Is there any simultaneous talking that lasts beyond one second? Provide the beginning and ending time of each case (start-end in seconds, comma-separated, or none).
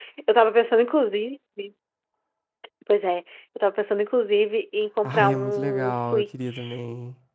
5.0-6.8